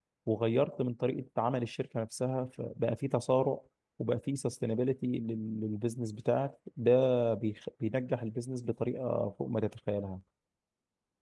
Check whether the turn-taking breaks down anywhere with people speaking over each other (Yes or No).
No